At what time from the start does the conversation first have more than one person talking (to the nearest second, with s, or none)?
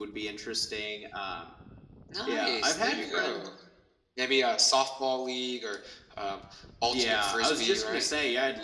2 s